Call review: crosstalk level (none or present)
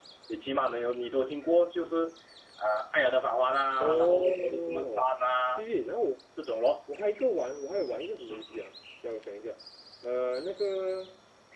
present